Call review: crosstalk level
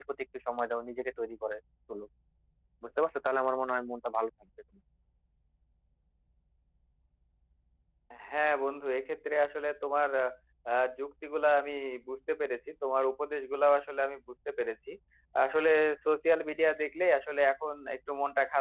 none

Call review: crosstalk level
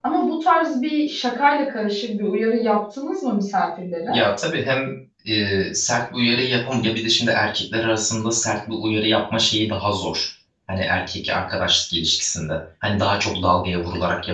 none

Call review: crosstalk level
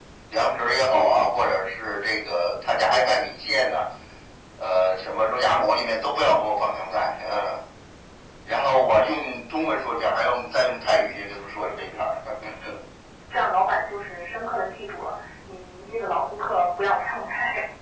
none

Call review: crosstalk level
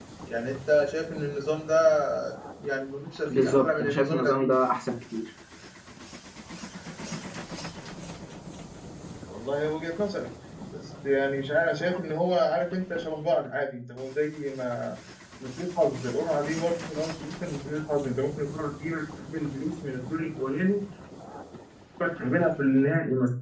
present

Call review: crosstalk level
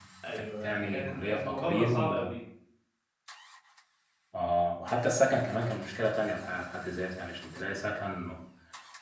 present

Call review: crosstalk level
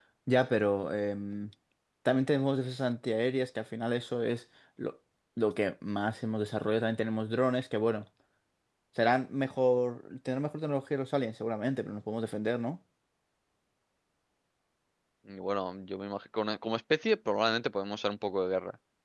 none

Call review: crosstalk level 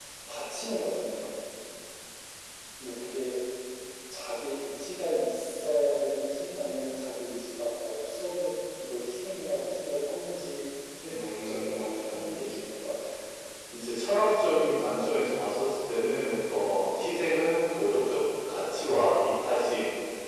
present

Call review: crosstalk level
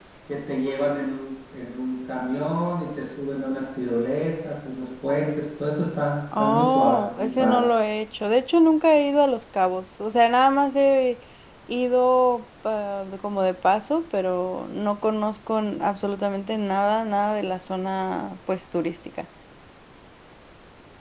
present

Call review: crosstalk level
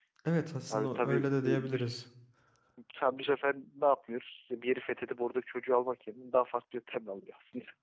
present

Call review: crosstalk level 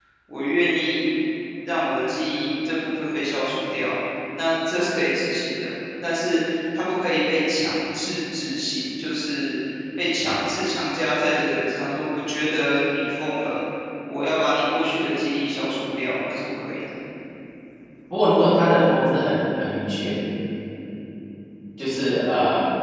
none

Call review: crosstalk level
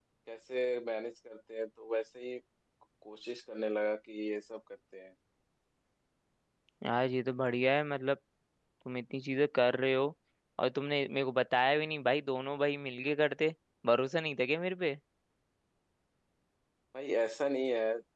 none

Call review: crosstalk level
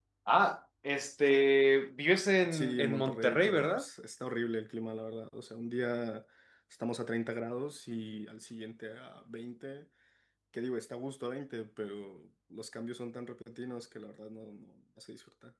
present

